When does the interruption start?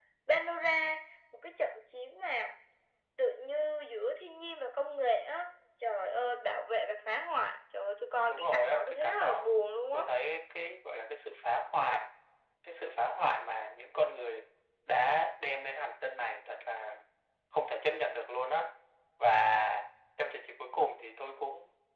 8.3 s

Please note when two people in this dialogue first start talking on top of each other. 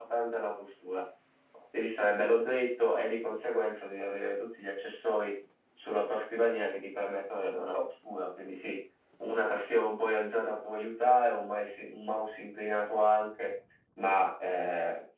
none

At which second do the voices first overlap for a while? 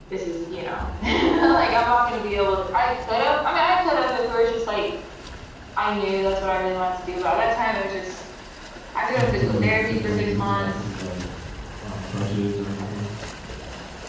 9.2 s

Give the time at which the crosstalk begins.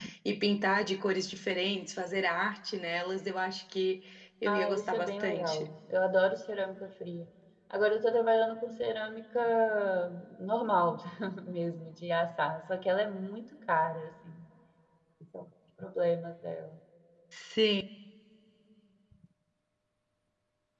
4.5 s

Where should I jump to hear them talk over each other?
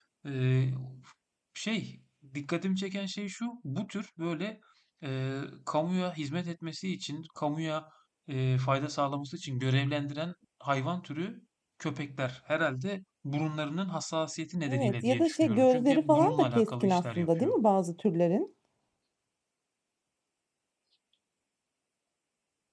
14.7 s

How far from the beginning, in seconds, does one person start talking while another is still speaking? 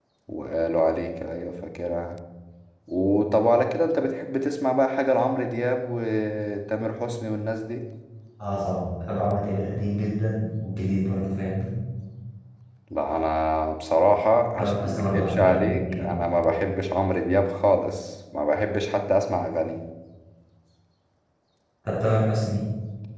14.6 s

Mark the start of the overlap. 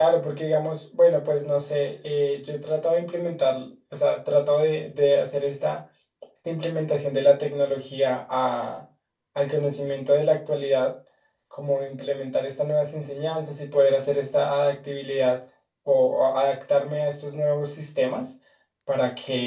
none

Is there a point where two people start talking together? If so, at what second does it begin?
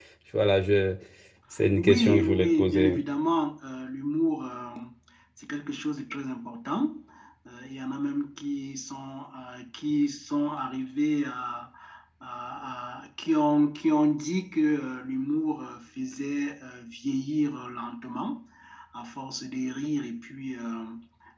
1.8 s

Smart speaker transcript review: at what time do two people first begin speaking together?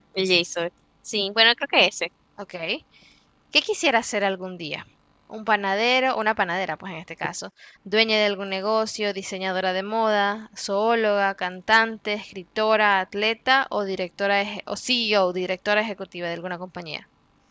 none

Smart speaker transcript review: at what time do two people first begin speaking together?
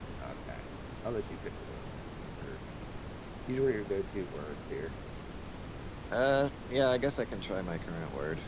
none

